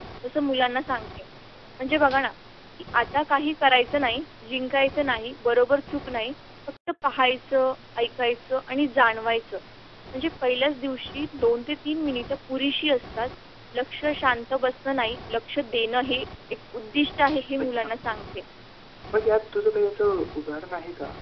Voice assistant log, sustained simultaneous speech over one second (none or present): none